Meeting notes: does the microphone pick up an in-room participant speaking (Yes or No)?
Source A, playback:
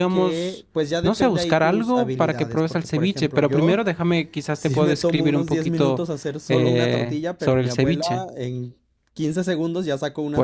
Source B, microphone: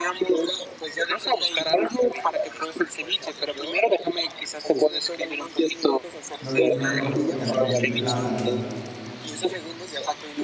Yes